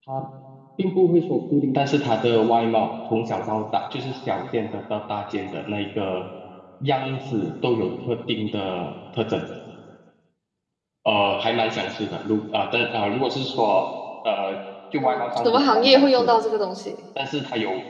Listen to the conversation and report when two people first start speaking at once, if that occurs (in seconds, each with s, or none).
15.0 s